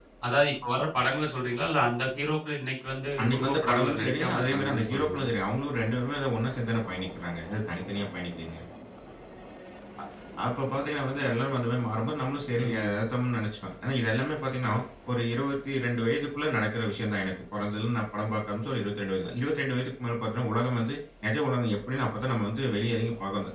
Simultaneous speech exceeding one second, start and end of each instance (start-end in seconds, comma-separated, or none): 3.2-5.3